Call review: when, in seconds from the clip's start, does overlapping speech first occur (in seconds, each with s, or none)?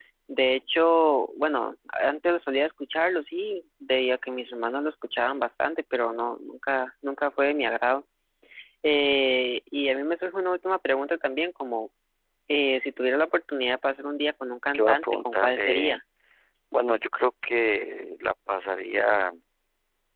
14.7 s